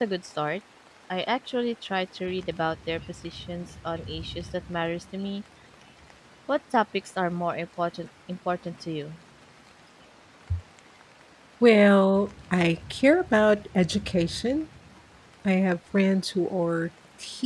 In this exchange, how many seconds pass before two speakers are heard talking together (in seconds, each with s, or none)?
none